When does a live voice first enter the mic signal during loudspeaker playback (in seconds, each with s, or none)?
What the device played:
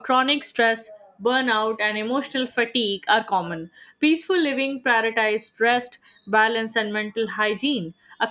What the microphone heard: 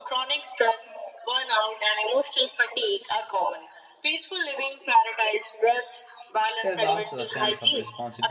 6.6 s